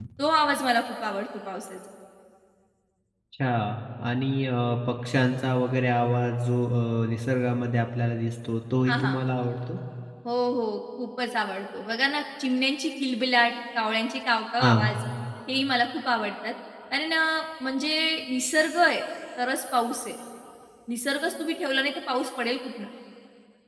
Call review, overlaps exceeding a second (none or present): none